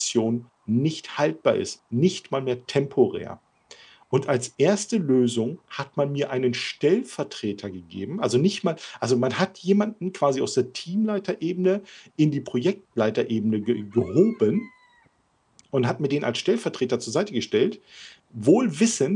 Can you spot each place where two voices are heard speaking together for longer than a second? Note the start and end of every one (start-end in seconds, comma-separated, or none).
none